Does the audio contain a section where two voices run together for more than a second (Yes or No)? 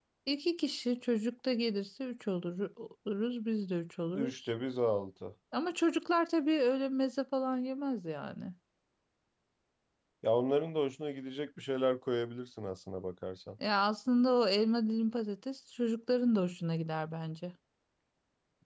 No